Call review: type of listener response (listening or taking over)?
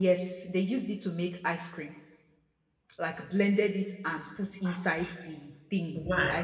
listening